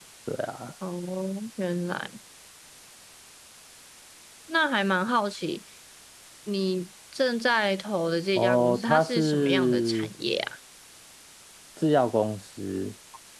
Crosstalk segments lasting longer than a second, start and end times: 8.4-10.1

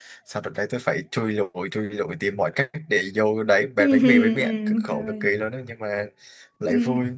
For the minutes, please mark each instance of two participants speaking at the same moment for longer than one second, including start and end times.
3.8-5.3

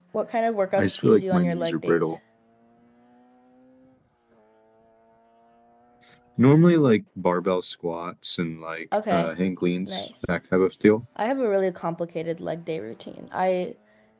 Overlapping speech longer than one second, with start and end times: 0.8-2.2

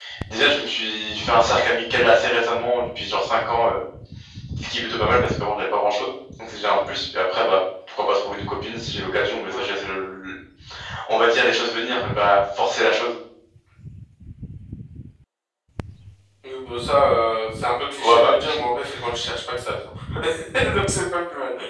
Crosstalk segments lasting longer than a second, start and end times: none

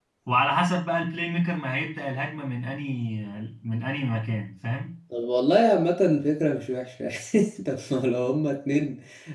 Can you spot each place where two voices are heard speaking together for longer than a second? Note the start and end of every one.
none

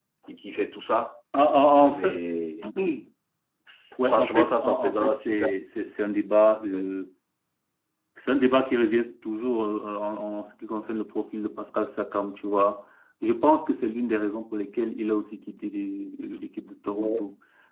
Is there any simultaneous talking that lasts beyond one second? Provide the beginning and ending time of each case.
4.1-5.5

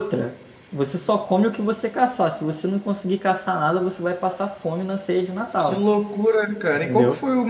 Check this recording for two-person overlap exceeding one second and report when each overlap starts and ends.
none

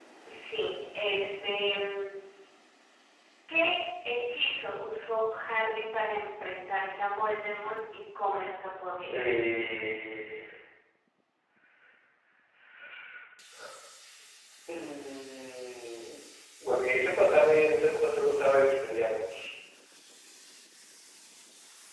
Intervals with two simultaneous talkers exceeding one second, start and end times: none

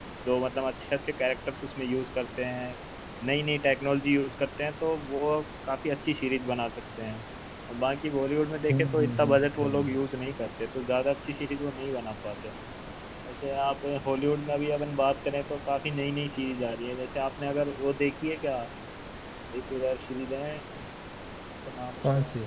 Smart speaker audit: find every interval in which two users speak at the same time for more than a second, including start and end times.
8.7-10.0

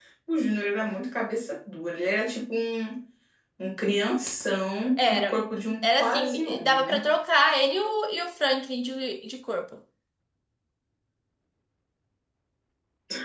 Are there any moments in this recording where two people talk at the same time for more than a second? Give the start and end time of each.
5.8-7.1

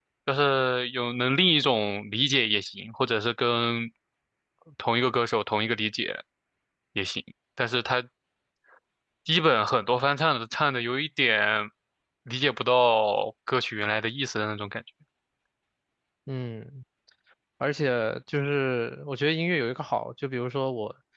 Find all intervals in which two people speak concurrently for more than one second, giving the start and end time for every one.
none

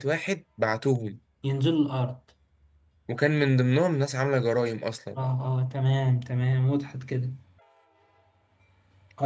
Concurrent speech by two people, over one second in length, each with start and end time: none

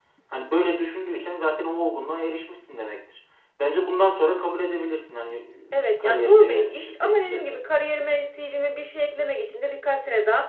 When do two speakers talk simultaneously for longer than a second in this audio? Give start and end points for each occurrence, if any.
6.0-7.6

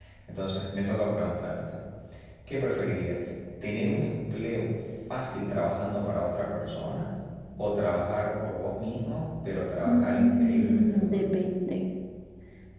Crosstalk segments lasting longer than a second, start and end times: 9.8-11.3

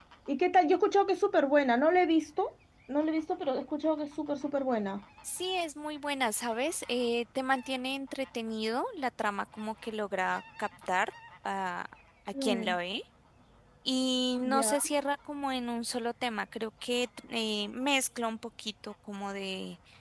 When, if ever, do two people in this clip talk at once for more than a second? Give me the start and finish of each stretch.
none

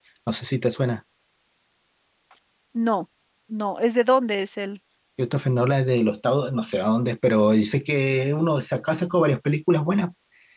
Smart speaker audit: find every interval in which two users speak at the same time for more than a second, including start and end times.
none

